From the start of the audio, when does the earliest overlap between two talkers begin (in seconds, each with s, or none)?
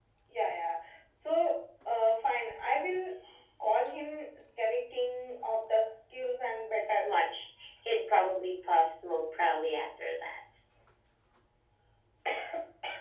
none